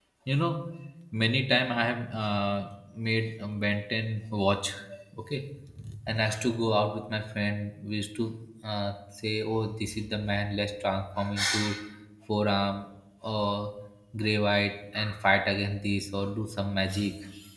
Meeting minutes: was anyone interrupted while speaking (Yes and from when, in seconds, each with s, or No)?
No